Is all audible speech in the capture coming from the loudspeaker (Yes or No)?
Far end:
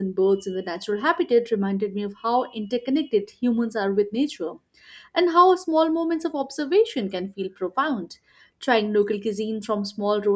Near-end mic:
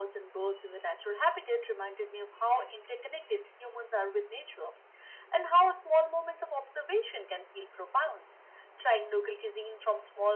Yes